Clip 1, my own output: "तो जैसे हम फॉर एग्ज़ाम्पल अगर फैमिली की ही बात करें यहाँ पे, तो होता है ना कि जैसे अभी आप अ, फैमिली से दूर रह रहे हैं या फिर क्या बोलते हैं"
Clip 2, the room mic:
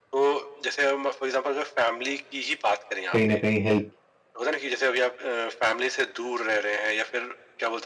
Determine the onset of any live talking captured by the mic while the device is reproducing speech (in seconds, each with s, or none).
3.1 s